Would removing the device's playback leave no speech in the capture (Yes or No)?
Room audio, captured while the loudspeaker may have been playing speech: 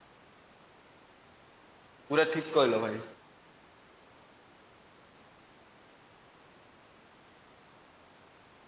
No